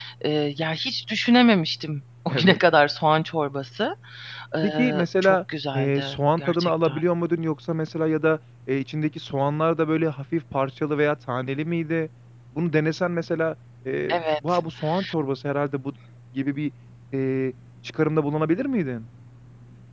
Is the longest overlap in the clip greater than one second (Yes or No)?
Yes